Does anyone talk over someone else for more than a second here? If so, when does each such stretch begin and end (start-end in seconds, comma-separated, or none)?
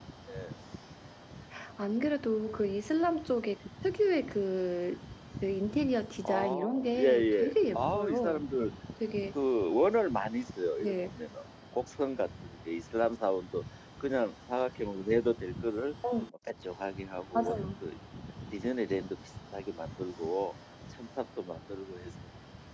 6.2-8.4